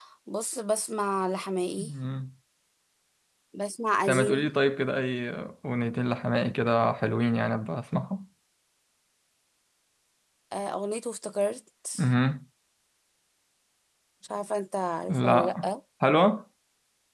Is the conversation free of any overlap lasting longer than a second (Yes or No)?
Yes